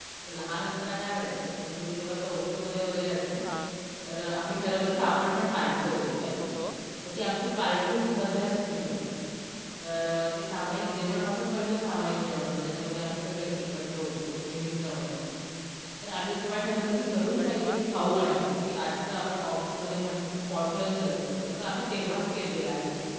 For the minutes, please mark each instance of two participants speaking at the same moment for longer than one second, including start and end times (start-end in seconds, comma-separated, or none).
none